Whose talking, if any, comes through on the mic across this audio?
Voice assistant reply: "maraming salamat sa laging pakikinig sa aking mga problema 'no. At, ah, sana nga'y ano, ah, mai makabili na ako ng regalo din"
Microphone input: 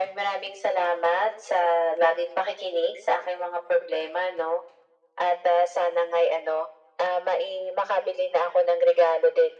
echo only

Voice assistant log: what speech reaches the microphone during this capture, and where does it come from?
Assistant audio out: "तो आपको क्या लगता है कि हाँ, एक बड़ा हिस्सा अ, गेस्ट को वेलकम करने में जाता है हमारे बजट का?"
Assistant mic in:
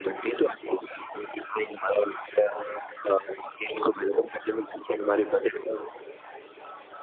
echo only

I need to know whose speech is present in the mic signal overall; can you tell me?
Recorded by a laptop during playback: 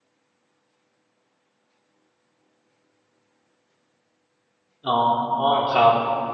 user only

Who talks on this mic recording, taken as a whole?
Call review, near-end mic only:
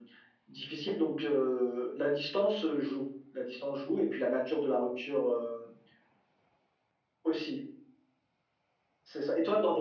echo only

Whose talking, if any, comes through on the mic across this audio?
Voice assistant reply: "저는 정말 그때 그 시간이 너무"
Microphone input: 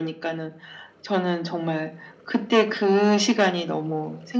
echo only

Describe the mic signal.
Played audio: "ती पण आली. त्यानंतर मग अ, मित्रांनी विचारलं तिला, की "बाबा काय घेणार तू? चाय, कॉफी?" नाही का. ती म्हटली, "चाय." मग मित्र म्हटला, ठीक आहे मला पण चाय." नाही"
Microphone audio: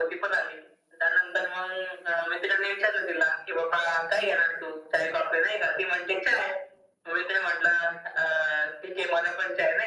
echo only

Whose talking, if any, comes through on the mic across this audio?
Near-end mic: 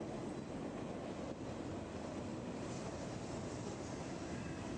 neither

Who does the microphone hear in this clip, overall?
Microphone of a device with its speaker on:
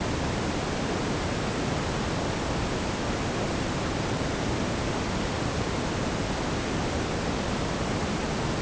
neither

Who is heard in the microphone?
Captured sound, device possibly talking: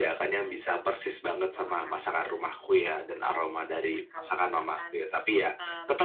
both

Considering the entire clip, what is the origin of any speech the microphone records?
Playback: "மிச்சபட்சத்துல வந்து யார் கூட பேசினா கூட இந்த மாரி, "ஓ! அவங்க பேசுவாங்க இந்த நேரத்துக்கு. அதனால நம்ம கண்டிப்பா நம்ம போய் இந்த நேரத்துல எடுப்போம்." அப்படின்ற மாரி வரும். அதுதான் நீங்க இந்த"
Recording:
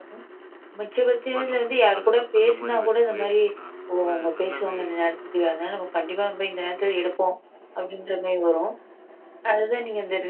both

